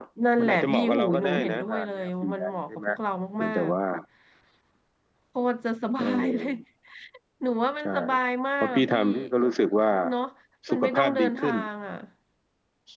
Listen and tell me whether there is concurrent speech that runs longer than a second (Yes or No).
Yes